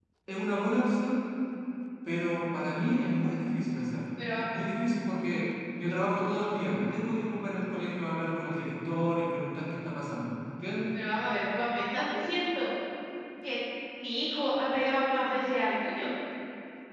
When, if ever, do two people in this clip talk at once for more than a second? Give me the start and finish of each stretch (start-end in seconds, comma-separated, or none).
none